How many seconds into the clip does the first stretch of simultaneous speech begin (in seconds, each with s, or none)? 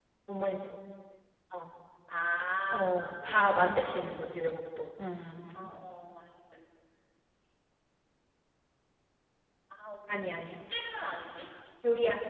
2.8 s